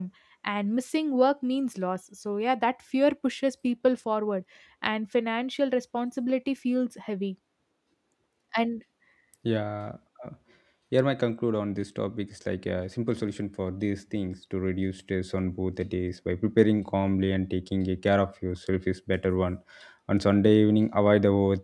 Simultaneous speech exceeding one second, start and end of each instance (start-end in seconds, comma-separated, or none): none